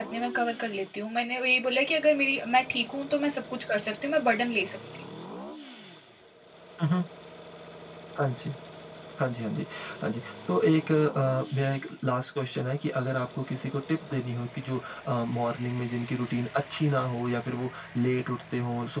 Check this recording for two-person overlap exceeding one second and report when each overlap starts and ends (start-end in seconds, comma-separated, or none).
none